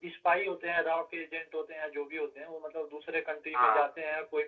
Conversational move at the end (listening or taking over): listening